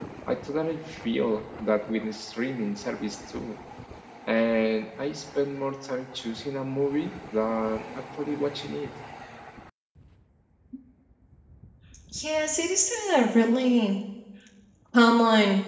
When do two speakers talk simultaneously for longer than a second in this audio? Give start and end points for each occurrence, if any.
none

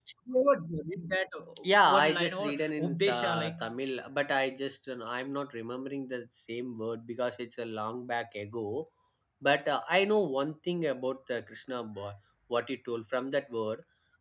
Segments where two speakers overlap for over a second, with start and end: 2.0-3.5

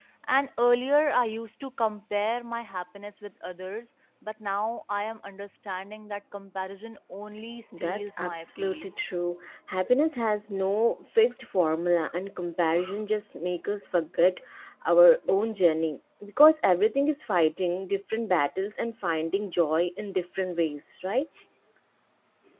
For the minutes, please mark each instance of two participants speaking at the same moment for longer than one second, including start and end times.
7.8-9.0

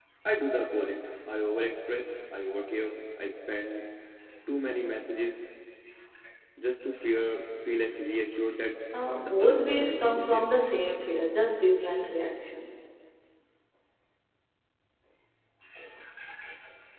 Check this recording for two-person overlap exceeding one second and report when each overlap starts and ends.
9.2-10.5

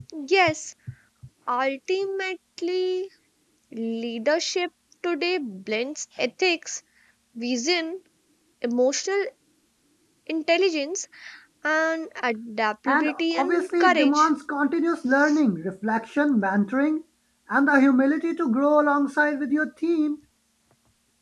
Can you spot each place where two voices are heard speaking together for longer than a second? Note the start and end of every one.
12.9-14.3

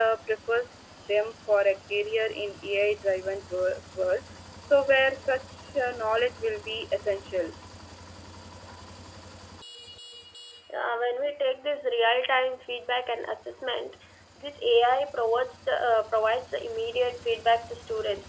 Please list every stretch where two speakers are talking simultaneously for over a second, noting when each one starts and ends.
none

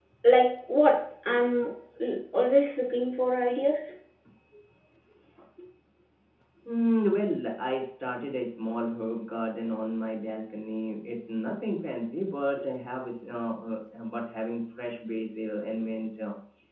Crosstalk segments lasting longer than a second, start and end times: none

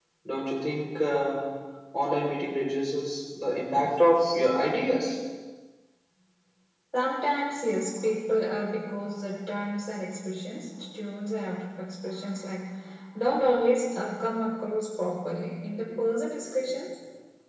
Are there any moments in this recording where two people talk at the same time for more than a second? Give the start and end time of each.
none

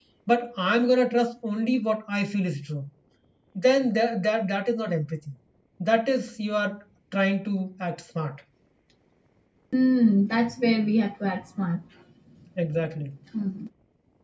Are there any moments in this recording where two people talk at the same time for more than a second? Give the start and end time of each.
none

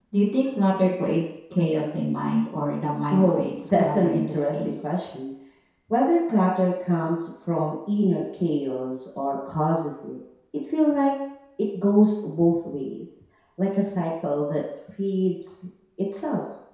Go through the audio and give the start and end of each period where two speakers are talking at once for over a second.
3.1-4.9

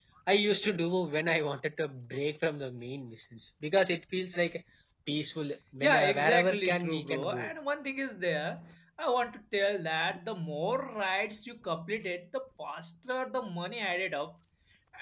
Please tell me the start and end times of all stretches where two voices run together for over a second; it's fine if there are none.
5.8-7.5

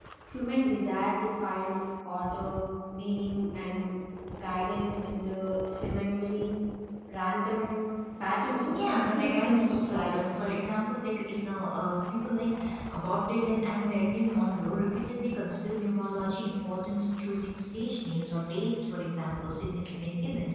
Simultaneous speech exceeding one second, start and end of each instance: 8.7-10.1

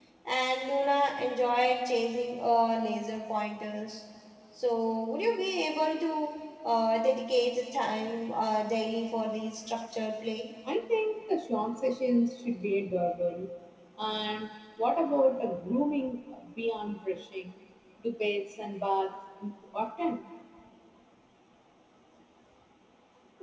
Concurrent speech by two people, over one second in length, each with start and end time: none

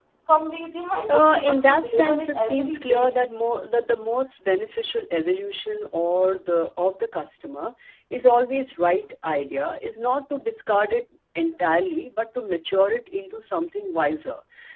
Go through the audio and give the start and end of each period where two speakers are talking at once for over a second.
1.1-3.1

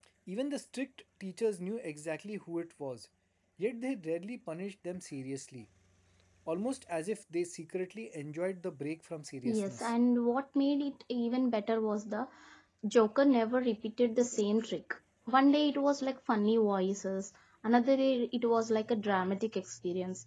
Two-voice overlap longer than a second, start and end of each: none

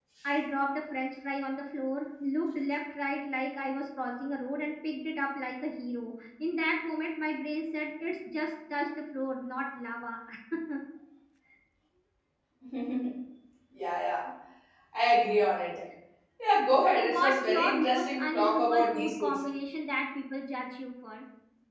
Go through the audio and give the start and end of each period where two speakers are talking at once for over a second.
16.9-19.4

